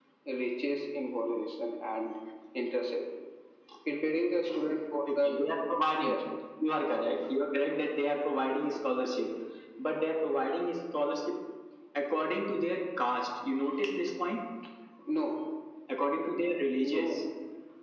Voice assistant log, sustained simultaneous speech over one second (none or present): none